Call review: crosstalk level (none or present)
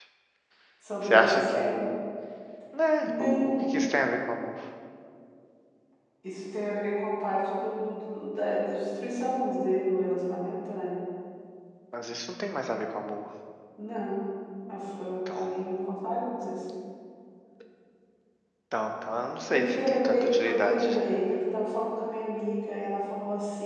present